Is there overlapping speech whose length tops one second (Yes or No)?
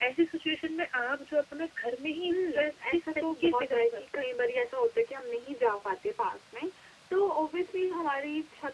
Yes